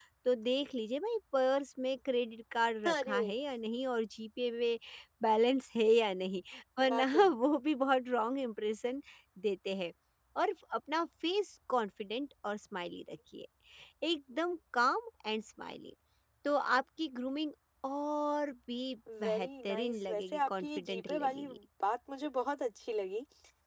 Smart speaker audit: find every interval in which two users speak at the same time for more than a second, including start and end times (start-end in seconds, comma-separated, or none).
19.2-21.6